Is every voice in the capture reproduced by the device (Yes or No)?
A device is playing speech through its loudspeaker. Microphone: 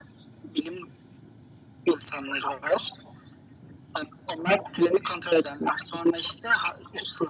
Yes